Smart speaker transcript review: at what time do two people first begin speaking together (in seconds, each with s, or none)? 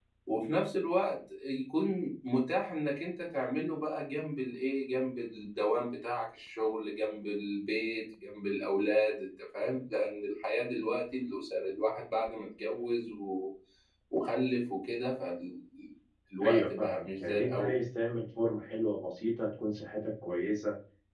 16.4 s